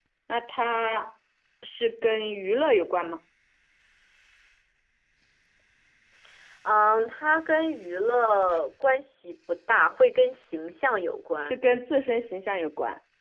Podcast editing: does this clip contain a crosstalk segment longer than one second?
No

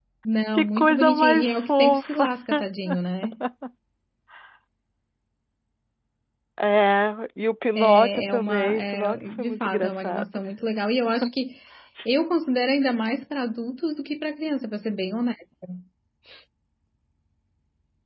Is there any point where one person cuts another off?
Yes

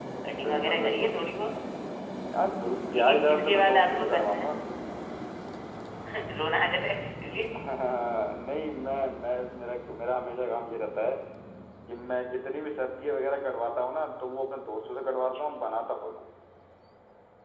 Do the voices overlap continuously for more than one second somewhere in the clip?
Yes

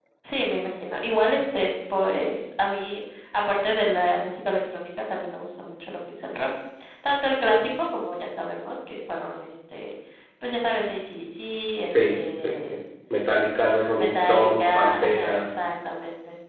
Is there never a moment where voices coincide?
No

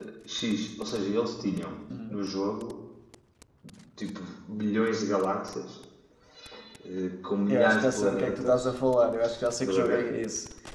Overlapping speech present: Yes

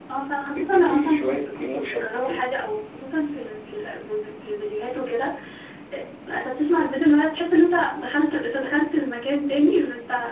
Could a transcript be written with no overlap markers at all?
No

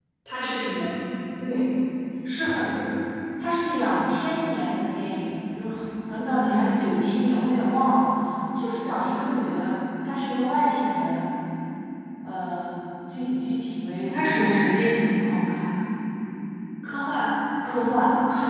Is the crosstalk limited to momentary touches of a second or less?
No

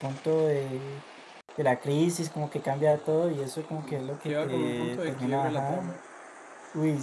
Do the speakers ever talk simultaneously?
Yes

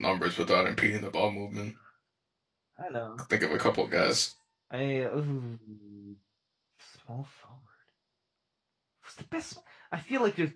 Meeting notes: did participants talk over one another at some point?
No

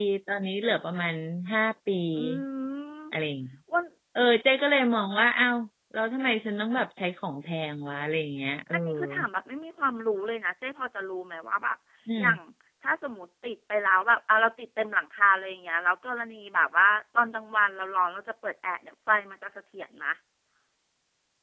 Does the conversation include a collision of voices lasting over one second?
No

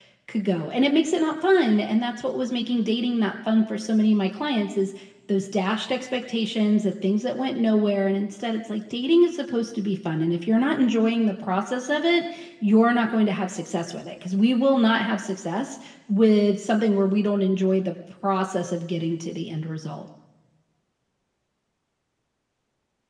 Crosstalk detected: No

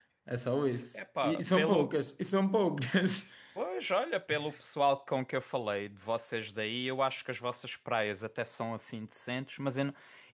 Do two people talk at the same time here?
Yes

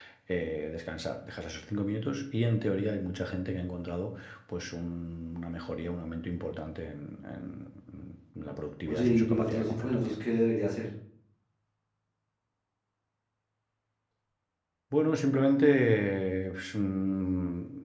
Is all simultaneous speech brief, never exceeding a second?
No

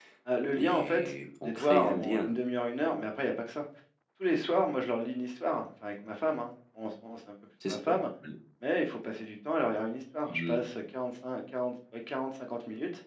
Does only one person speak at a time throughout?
No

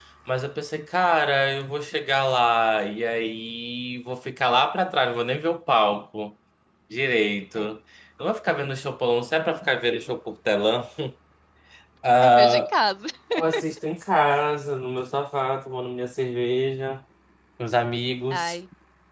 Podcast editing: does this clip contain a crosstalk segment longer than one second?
No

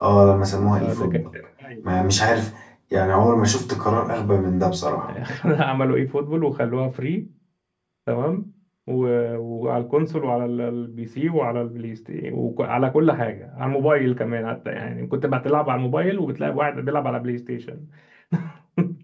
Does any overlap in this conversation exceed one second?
No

